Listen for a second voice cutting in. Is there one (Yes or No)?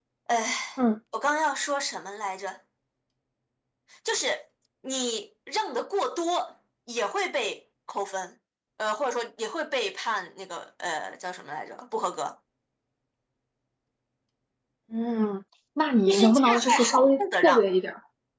Yes